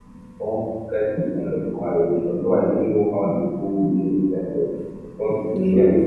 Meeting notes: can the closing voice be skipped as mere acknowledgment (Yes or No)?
Yes